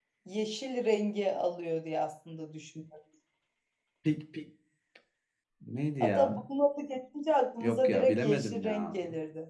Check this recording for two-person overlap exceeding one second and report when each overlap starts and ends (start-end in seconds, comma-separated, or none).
7.6-9.0